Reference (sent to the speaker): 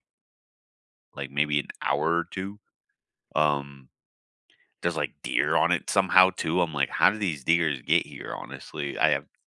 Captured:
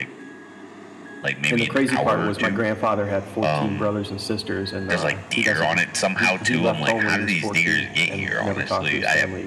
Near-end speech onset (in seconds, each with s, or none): 1.5 s